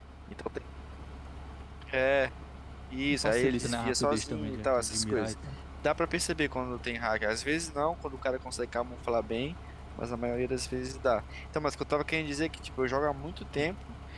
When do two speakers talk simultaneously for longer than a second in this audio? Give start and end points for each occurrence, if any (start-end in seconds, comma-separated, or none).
3.1-5.3